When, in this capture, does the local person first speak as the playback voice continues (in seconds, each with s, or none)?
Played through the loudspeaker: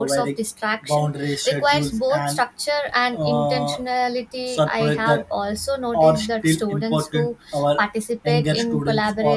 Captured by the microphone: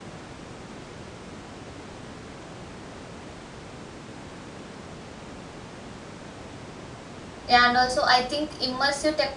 7.5 s